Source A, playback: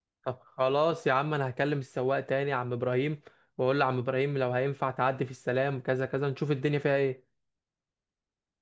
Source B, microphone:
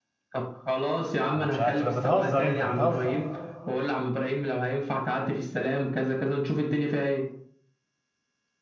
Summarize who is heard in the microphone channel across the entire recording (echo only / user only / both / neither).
both